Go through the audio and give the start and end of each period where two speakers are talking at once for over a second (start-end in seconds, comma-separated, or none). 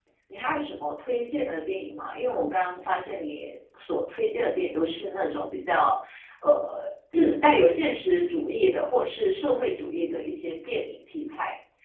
none